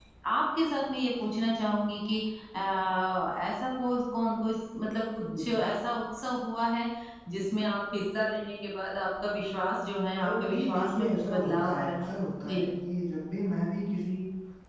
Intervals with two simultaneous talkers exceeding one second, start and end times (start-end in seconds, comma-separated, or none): 10.2-12.1